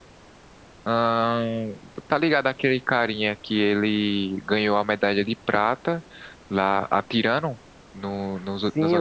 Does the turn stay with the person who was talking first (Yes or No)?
No